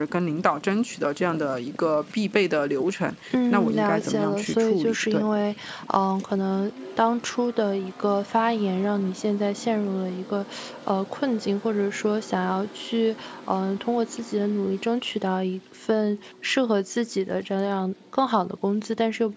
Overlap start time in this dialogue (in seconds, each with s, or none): 3.3 s